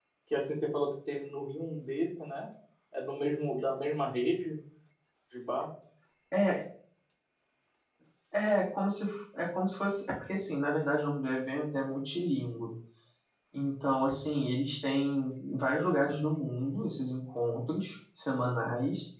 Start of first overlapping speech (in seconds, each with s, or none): none